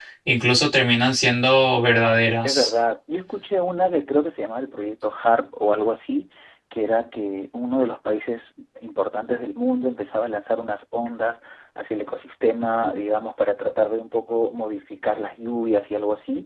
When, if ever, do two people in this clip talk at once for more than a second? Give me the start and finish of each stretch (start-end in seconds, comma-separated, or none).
none